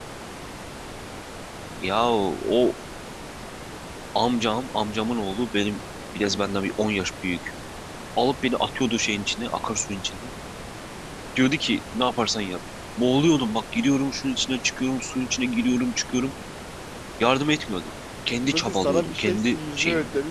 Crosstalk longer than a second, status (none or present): present